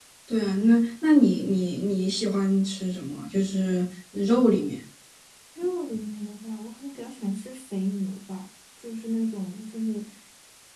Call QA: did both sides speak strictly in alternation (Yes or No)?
Yes